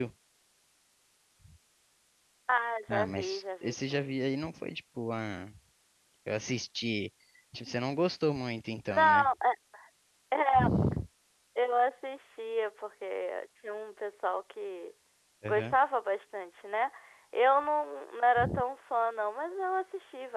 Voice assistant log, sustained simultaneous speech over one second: present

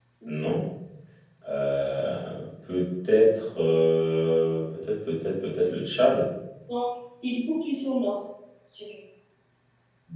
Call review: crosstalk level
none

